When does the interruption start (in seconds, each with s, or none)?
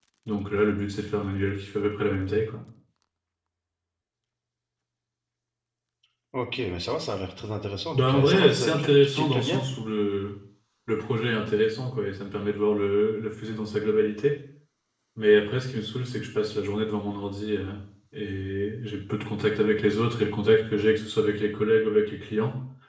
7.9 s